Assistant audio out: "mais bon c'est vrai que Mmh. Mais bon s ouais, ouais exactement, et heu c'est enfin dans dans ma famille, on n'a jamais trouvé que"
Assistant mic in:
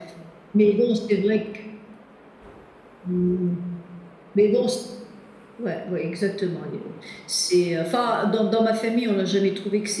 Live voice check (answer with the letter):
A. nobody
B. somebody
A